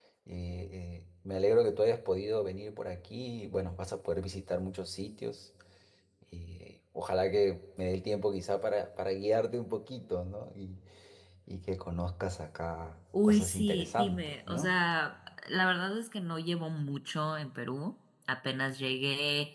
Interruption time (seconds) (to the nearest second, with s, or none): 13 s